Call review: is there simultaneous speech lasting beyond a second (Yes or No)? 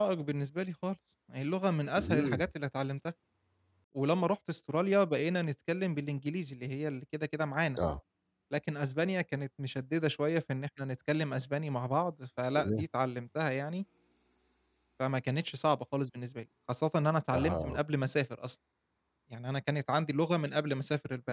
No